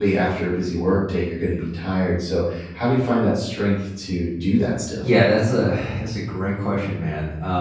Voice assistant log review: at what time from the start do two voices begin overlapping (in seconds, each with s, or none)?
none